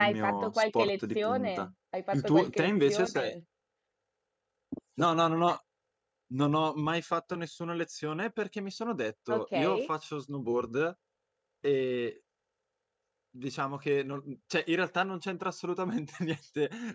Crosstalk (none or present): present